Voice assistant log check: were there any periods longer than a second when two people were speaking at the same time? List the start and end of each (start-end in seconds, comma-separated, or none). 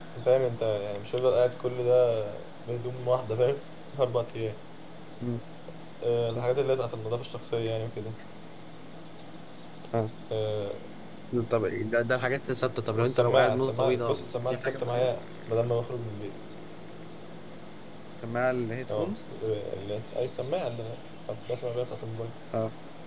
13.0-15.1